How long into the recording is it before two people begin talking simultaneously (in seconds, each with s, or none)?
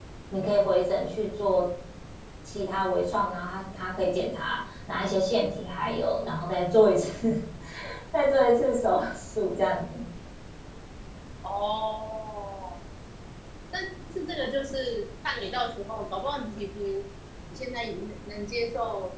none